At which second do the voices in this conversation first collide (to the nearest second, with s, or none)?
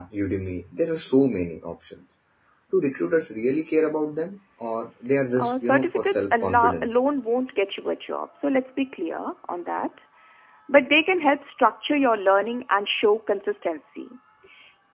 5 s